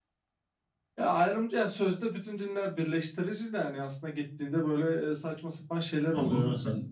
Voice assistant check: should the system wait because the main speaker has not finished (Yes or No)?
No